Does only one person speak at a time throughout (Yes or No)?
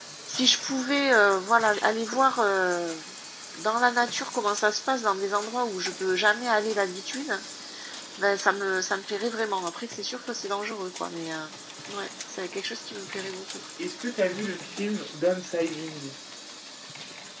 Yes